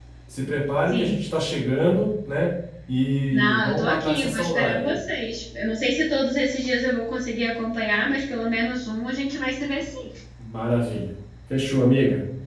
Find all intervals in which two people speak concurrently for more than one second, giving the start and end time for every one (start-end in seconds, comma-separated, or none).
3.3-5.0